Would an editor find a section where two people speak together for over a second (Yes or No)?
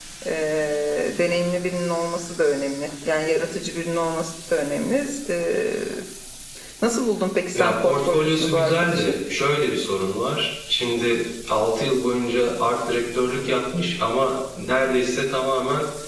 Yes